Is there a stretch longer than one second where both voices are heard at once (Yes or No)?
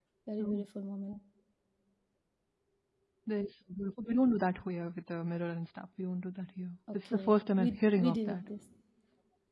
Yes